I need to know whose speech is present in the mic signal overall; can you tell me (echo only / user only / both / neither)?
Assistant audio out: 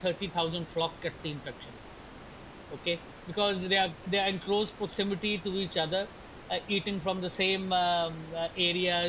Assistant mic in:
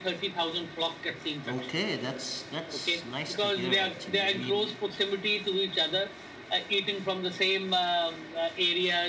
both